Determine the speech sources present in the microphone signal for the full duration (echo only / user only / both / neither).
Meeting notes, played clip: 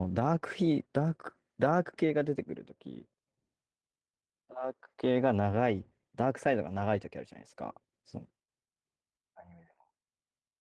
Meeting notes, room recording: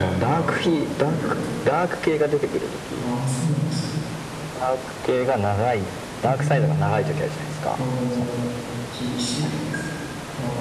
both